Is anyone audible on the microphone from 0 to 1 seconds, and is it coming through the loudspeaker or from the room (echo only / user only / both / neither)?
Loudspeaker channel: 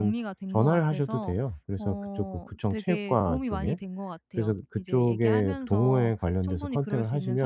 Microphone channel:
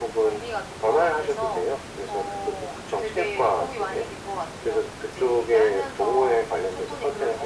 echo only